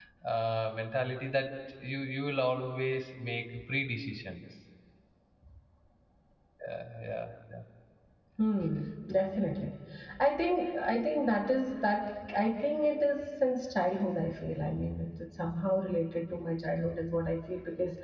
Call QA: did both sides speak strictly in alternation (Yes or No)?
Yes